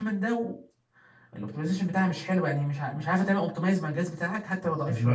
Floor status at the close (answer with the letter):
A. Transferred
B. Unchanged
A